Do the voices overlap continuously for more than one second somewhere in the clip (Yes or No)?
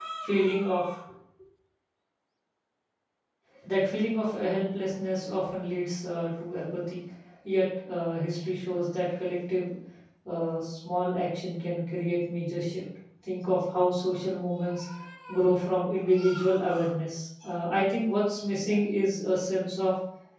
No